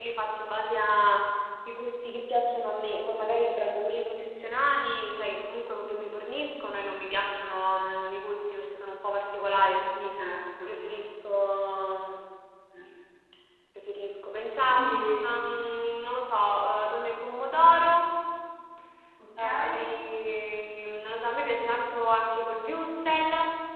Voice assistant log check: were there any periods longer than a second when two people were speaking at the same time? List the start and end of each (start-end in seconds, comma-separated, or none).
none